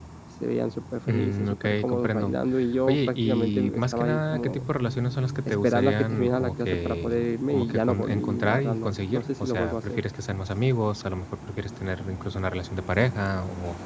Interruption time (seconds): 1.1 s

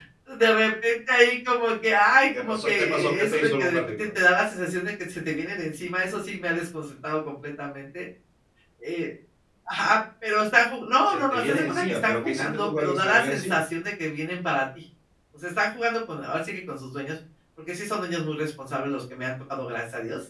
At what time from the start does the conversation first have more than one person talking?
2.4 s

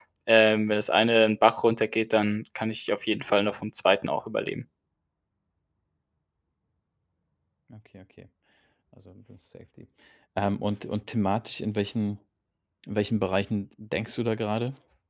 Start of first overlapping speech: none

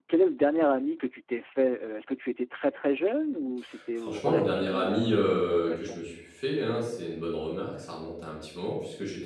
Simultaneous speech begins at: 4.0 s

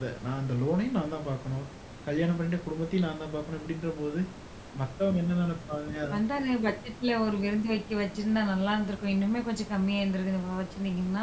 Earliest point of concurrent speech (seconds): none

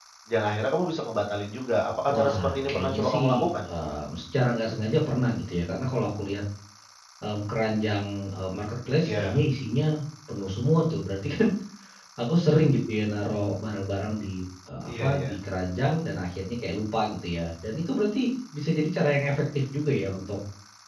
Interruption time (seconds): 2.1 s

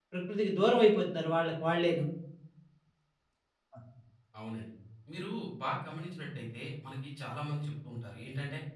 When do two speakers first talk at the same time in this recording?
none

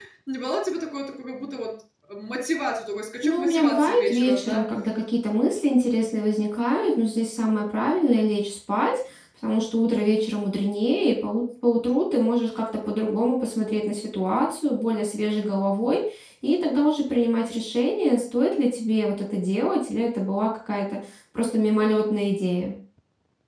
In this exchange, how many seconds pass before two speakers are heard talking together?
3.2 s

